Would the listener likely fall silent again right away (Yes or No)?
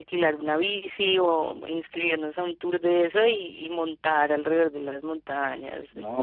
No